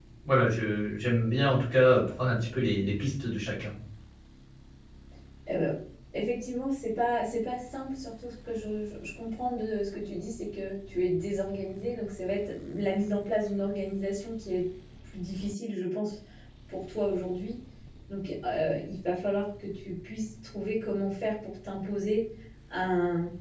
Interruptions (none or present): none